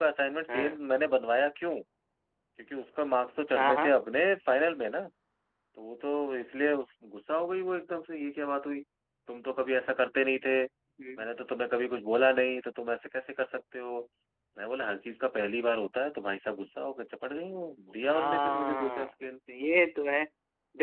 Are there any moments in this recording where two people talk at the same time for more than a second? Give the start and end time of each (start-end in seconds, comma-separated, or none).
18.1-19.3